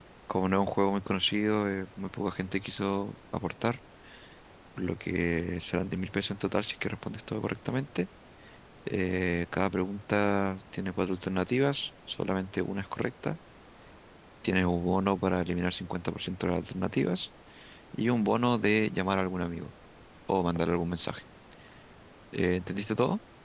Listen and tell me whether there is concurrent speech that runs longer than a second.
No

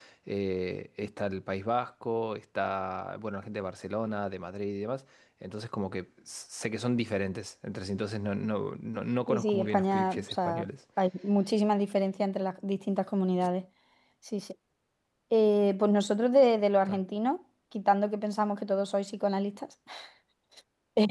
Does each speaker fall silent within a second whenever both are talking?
No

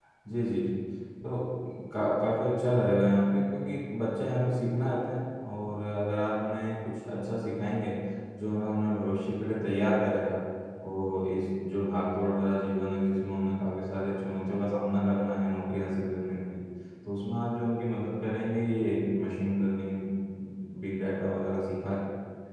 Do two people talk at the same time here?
No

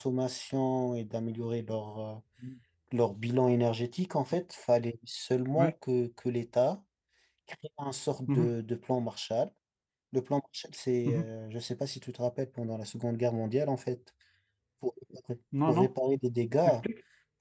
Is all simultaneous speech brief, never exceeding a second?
Yes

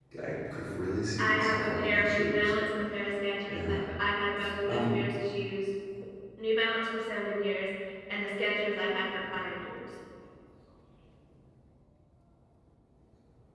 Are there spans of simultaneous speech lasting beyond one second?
Yes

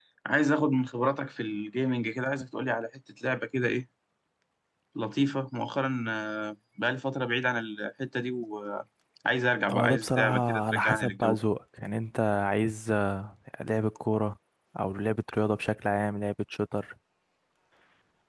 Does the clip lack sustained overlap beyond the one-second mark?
No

